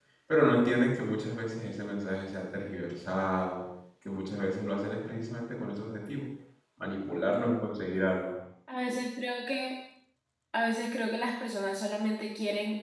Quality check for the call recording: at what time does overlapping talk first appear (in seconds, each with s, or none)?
none